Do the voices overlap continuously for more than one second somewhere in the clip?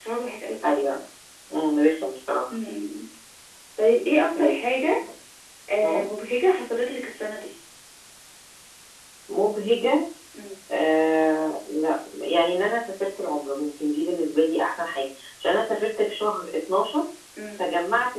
No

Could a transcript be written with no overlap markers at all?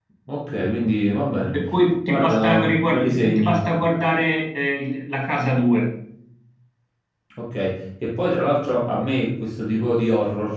No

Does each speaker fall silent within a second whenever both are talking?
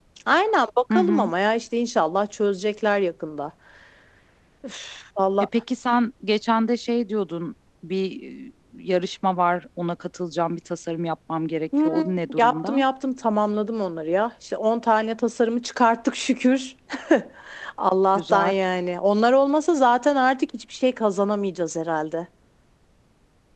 Yes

